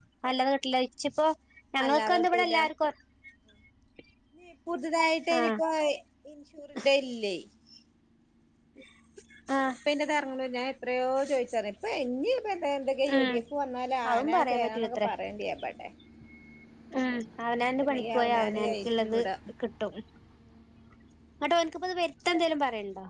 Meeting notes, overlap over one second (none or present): present